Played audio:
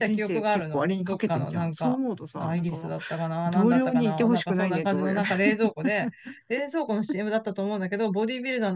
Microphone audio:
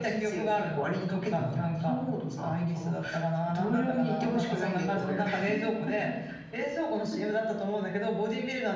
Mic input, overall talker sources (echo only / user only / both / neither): echo only